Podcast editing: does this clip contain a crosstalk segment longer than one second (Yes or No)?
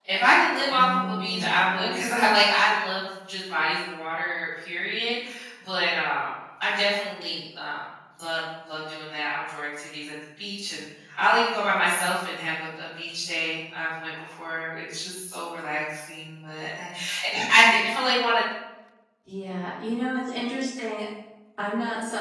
Yes